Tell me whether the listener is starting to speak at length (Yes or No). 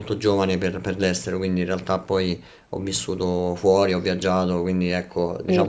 Yes